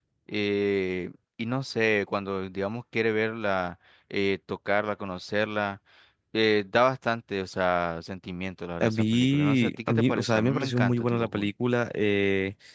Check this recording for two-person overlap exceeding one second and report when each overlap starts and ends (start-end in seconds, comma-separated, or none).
8.8-11.5